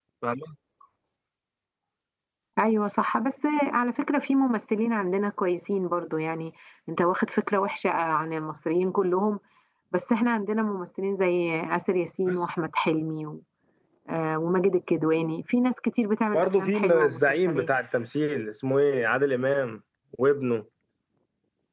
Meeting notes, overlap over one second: present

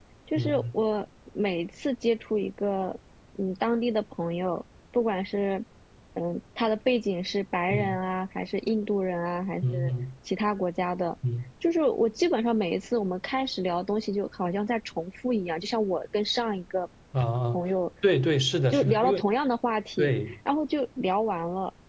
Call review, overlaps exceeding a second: none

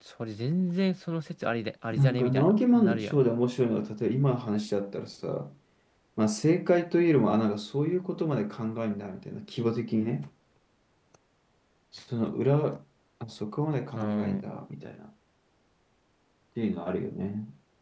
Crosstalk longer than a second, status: present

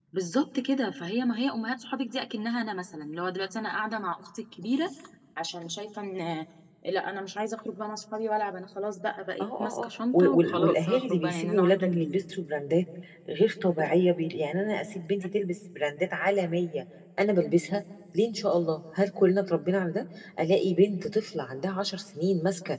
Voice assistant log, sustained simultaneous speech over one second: present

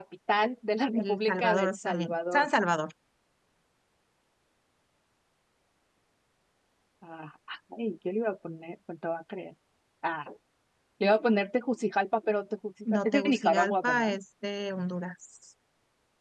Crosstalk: present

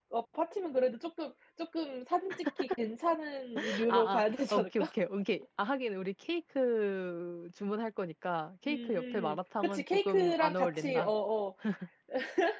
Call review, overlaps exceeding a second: present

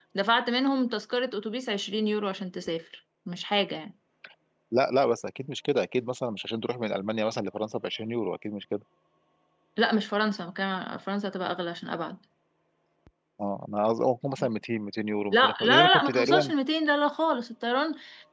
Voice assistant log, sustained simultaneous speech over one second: present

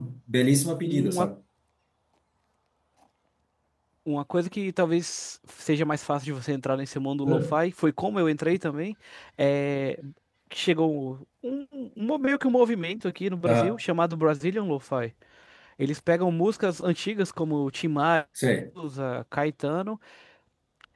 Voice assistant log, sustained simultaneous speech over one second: none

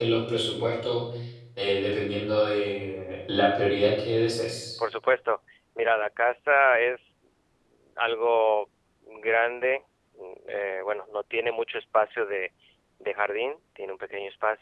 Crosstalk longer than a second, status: none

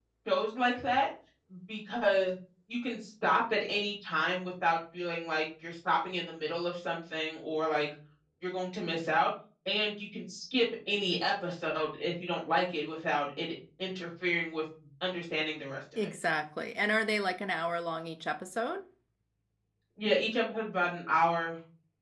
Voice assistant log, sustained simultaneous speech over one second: none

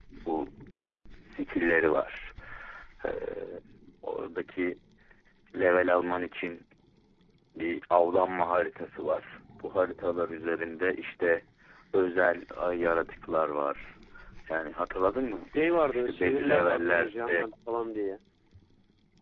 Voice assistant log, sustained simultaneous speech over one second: present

